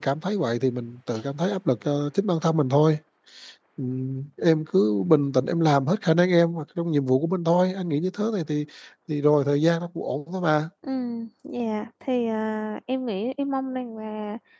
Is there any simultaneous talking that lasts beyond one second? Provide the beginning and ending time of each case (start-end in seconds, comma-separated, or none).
none